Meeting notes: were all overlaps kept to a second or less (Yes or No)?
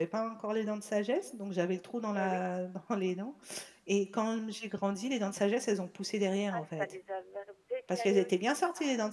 No